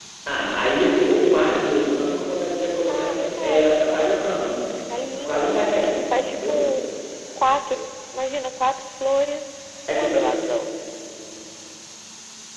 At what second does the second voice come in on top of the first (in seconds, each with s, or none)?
2.9 s